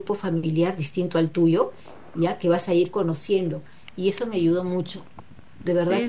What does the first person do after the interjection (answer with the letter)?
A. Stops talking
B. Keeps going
A